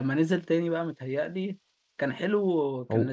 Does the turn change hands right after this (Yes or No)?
No